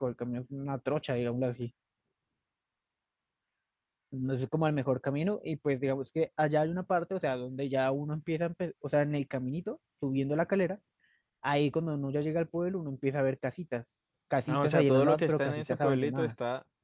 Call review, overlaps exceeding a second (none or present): present